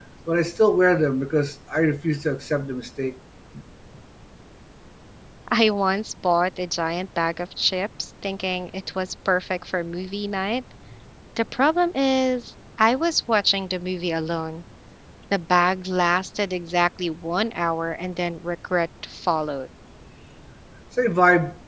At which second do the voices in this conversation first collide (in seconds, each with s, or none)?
none